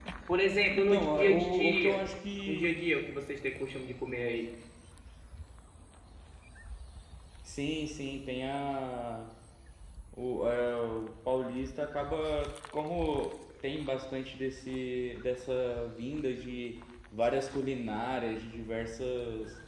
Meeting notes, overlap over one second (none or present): present